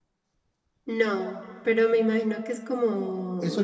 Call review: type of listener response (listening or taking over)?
taking over